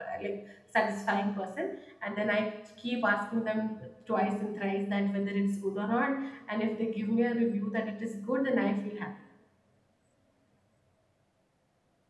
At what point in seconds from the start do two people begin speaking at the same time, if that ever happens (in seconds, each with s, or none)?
none